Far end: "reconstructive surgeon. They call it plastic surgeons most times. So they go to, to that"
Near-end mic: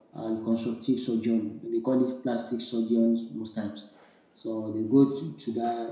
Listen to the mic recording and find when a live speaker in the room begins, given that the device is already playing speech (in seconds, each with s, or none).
none